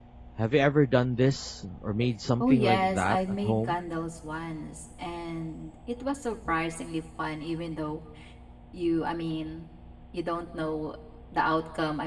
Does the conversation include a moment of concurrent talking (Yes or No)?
Yes